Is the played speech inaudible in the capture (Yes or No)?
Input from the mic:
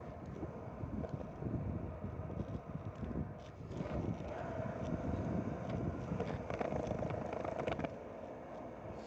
Yes